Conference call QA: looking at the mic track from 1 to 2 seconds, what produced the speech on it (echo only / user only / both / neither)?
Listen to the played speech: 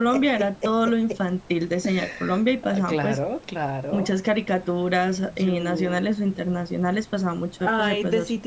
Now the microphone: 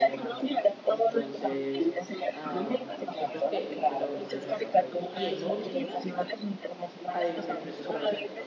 both